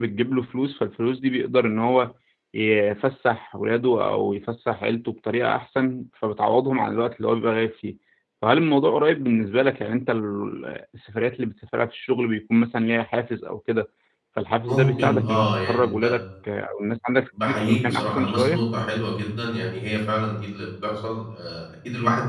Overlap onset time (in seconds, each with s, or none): 14.7 s